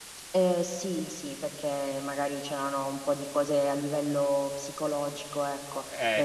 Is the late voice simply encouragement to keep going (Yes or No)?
Yes